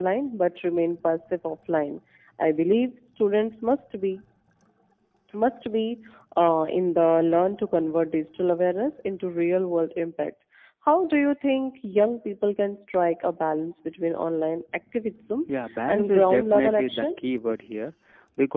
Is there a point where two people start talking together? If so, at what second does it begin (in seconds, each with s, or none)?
15.9 s